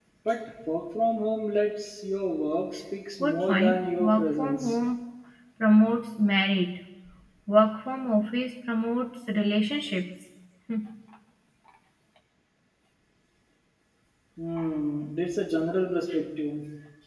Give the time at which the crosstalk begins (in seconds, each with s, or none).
3.2 s